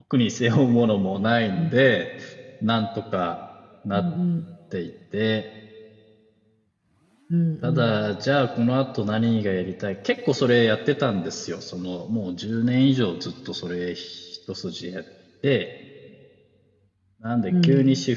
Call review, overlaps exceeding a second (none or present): none